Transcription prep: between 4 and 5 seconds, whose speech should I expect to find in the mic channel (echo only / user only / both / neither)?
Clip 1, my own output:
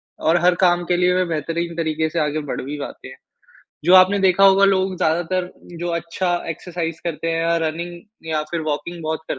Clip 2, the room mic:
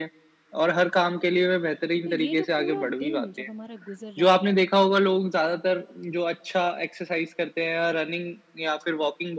both